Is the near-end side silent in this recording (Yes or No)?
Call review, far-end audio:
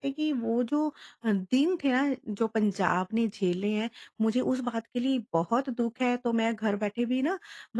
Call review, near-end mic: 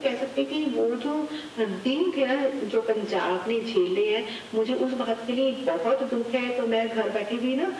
Yes